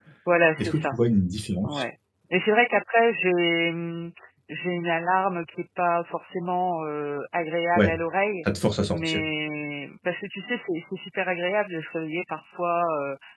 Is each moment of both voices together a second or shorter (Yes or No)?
Yes